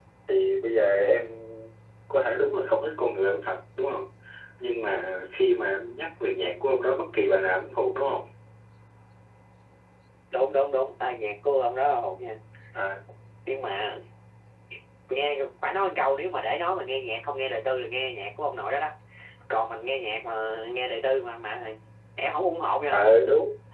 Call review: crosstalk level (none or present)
none